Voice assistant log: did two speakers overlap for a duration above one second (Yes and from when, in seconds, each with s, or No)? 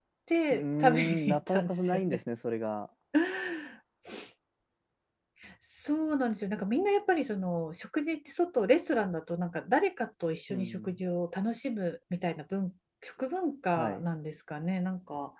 Yes, from 0.5 s